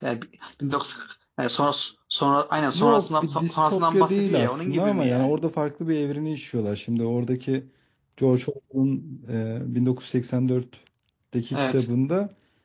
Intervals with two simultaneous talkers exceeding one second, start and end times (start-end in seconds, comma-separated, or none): 2.7-5.3